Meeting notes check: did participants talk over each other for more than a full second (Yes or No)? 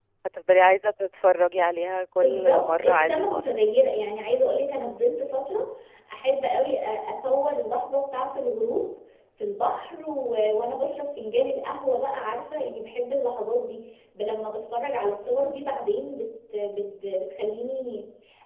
Yes